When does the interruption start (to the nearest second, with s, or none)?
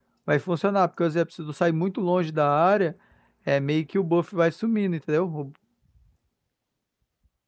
none